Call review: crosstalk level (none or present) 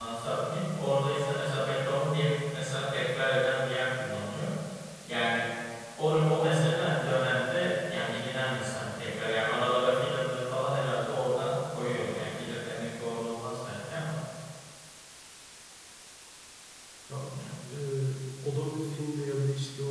none